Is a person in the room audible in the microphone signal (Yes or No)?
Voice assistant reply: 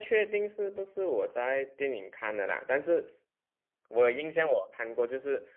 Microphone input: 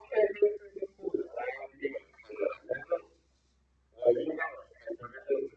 No